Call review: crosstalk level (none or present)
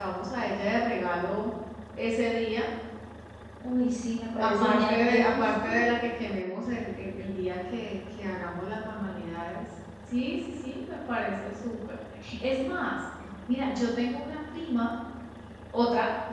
present